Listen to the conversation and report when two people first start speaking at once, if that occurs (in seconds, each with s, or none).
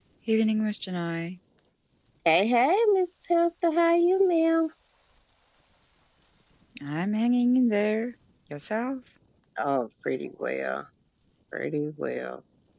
none